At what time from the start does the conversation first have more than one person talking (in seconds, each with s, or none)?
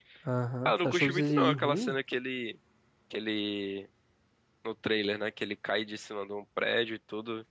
0.7 s